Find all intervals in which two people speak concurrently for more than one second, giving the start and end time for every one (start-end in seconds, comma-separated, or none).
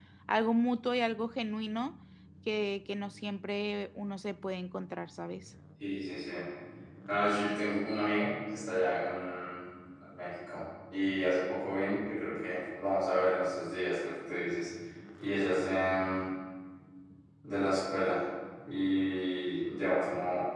none